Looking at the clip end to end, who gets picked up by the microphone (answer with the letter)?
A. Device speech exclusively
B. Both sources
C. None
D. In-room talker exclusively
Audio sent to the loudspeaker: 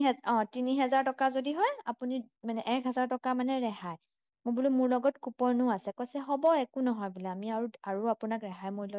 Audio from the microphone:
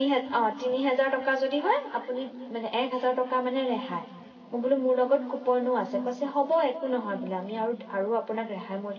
A